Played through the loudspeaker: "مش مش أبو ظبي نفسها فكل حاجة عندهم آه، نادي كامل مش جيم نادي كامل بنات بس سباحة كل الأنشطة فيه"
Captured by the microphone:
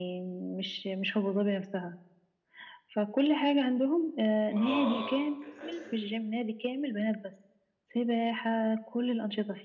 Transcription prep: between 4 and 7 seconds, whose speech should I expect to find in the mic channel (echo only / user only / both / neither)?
both